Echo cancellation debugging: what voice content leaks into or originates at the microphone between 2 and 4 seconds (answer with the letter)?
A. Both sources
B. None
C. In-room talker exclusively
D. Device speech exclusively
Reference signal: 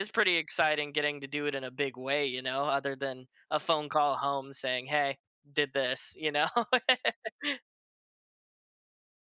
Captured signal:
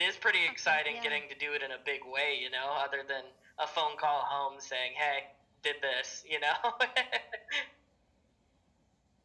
D